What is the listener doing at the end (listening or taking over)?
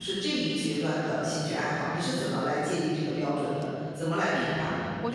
taking over